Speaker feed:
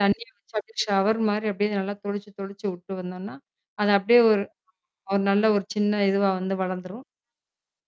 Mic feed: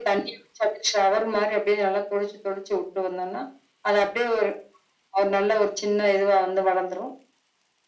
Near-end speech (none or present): none